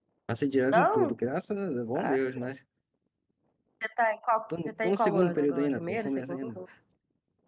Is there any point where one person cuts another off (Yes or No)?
Yes